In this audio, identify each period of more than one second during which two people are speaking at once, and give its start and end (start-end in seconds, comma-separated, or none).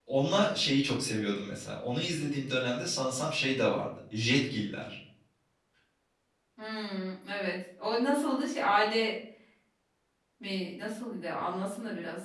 none